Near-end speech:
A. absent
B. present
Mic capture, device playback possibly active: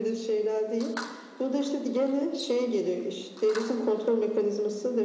A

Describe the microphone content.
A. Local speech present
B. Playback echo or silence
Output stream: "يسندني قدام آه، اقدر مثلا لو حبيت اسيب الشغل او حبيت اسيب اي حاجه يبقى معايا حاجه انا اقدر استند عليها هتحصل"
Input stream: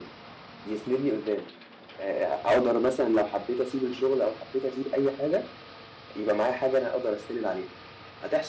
B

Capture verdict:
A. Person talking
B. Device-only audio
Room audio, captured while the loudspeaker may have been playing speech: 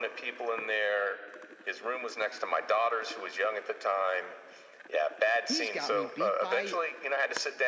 A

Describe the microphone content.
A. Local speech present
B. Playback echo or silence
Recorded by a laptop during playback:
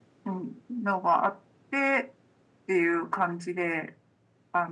B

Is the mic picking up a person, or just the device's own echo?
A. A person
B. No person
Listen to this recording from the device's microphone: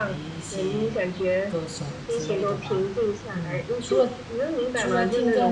A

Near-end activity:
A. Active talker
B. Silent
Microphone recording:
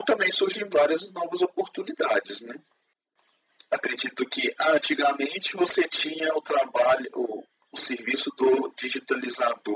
B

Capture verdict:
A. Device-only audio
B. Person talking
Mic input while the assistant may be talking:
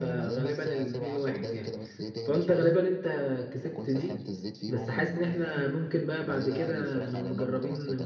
B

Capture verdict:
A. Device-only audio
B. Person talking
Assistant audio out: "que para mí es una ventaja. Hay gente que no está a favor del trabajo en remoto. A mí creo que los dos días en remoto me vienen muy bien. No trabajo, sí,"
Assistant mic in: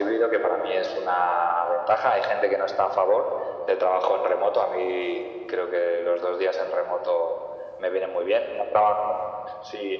A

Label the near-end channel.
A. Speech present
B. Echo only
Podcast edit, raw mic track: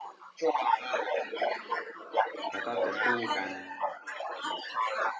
A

